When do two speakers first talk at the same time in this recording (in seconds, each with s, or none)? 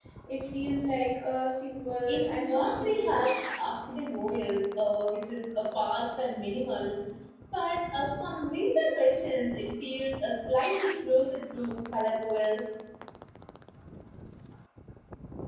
2.1 s